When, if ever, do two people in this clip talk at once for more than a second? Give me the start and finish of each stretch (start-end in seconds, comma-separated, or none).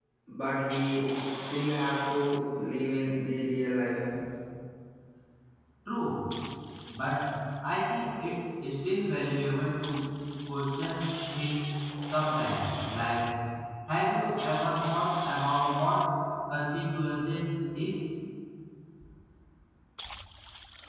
none